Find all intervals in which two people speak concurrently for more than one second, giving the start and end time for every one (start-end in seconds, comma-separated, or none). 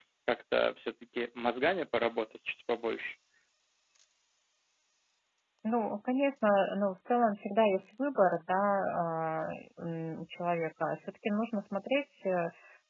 none